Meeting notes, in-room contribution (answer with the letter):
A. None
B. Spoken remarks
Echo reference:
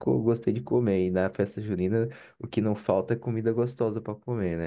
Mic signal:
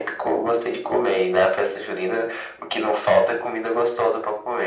A